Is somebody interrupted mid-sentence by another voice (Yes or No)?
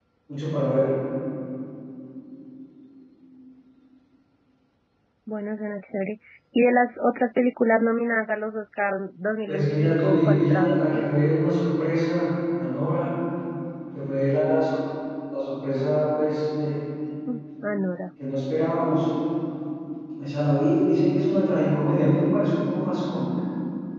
Yes